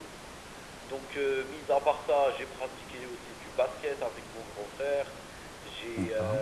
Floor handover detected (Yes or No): No